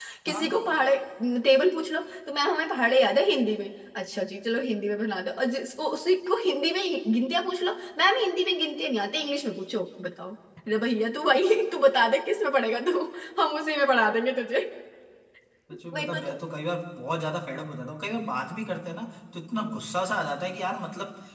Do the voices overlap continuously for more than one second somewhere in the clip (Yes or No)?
No